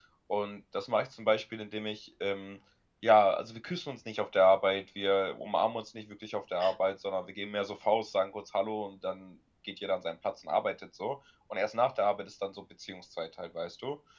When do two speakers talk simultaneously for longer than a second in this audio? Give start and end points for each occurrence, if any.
none

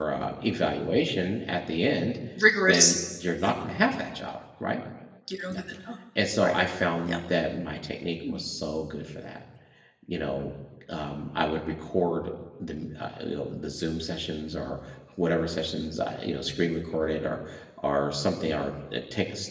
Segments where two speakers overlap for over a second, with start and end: none

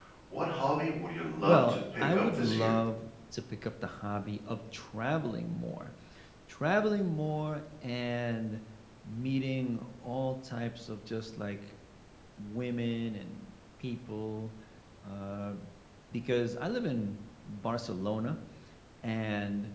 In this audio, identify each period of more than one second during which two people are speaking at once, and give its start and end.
1.4-2.8

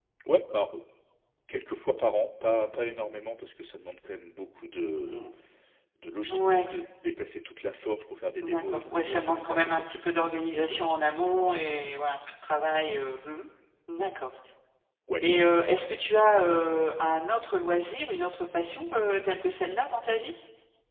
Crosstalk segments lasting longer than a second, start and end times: 8.4-9.8

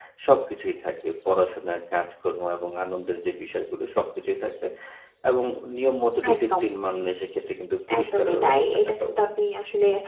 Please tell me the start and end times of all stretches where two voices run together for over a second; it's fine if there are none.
8.0-9.3

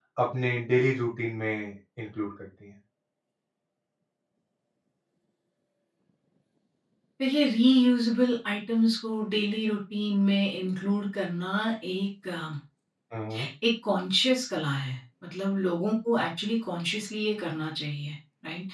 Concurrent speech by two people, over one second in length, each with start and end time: none

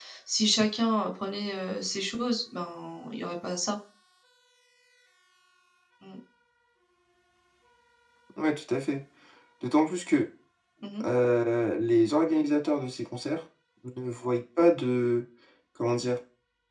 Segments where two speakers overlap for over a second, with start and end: none

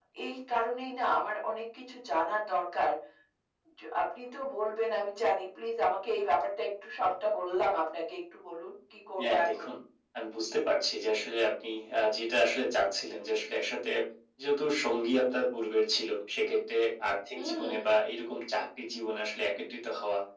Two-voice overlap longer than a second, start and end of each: none

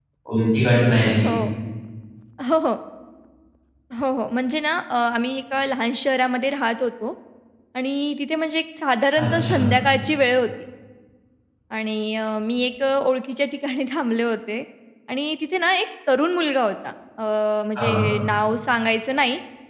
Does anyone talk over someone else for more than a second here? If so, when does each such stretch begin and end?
none

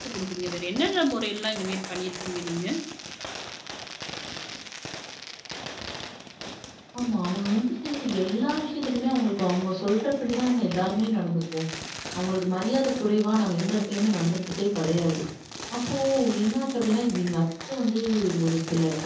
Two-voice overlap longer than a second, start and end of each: none

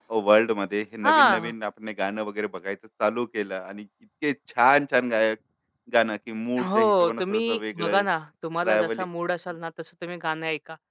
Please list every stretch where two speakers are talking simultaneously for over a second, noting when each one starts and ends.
6.6-8.0

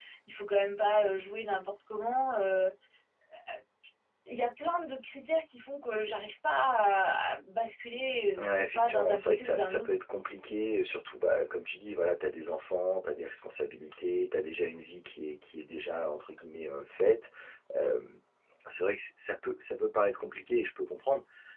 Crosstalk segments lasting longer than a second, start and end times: 8.4-9.9

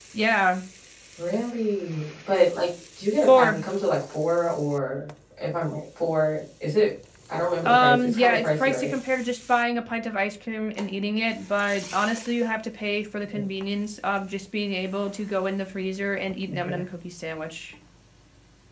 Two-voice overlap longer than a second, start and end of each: 7.6-8.9

